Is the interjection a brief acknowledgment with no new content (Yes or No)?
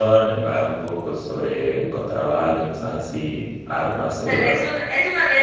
No